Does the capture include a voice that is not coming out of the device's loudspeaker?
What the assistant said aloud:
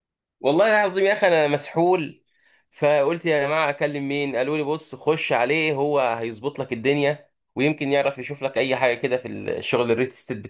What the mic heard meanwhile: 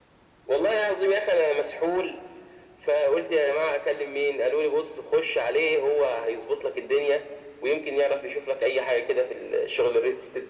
No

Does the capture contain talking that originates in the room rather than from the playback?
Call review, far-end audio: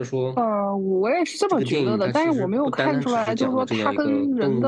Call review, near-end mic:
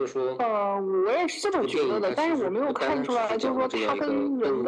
No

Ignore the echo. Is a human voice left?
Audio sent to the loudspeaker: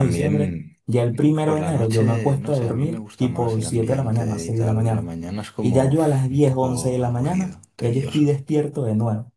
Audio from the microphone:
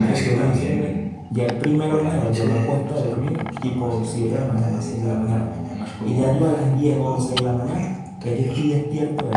No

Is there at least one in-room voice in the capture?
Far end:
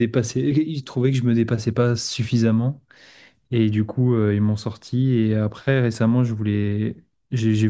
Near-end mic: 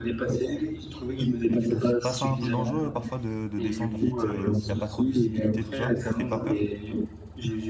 Yes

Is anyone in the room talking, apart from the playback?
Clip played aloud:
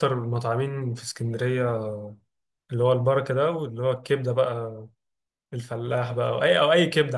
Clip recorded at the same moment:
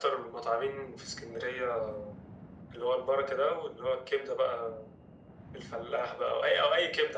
No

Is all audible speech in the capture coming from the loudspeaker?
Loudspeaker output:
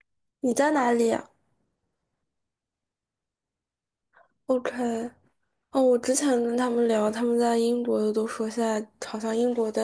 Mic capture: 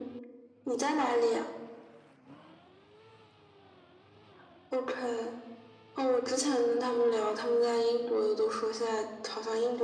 Yes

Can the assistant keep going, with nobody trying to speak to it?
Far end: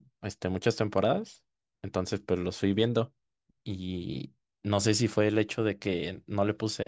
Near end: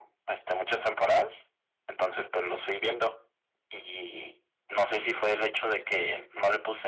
Yes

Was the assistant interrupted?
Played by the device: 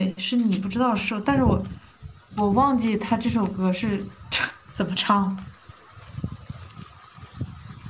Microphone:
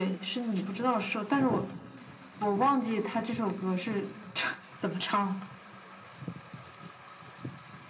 No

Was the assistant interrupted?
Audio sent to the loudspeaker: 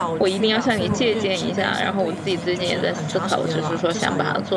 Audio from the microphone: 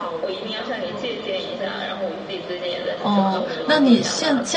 Yes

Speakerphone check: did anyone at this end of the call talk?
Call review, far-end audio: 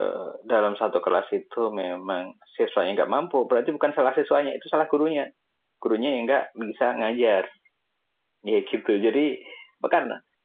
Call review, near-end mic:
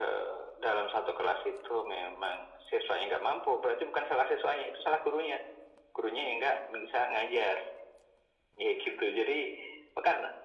No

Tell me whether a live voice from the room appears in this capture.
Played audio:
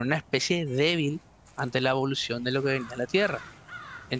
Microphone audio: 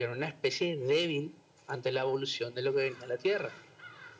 No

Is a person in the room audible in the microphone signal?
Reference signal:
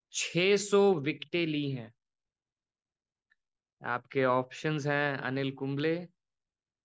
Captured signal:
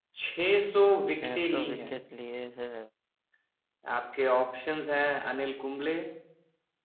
Yes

